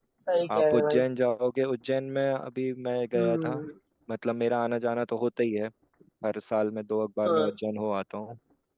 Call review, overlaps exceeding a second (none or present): none